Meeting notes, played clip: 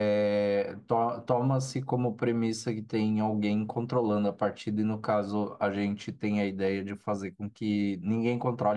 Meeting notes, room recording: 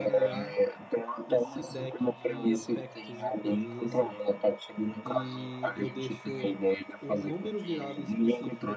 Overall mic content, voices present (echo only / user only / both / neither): both